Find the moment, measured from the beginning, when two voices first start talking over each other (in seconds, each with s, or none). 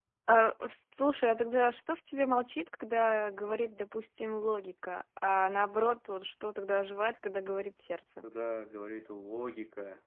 none